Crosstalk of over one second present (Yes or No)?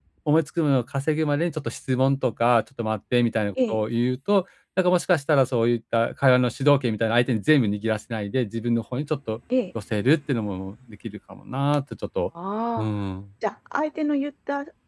No